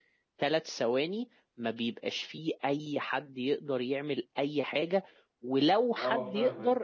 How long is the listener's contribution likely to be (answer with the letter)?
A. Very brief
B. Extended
A